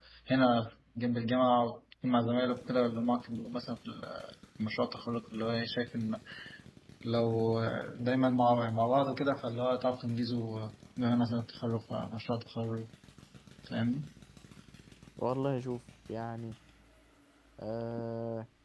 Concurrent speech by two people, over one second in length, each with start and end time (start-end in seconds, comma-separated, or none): none